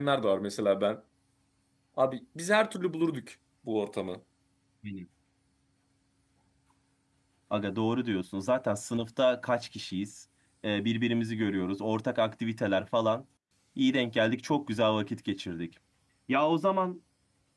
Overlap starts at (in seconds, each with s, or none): none